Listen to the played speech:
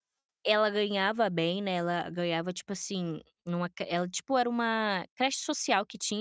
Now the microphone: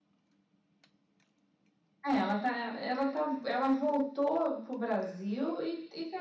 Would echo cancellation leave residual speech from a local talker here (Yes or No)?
Yes